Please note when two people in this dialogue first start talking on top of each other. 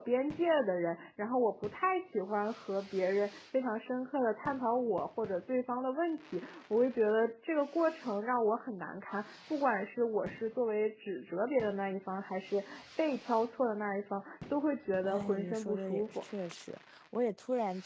15.0 s

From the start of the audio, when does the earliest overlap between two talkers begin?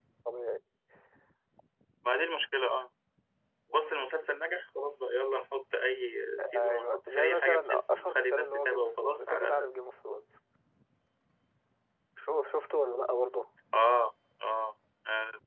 6.4 s

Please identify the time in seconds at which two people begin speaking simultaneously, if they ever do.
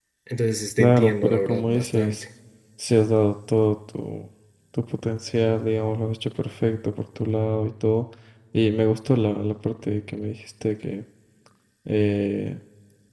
0.8 s

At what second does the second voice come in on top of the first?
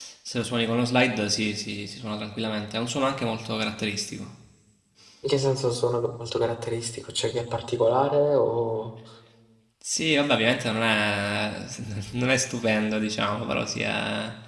none

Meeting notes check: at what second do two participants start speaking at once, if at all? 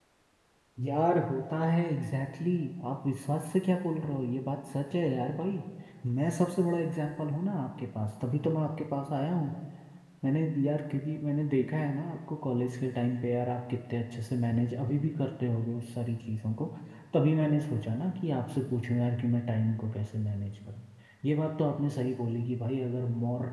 none

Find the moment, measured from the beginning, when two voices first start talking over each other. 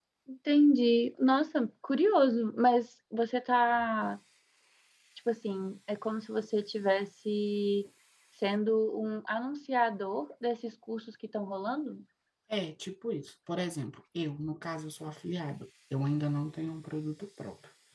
none

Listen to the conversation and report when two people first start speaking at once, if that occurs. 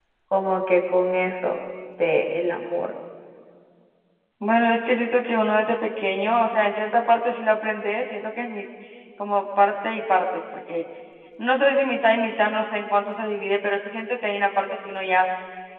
none

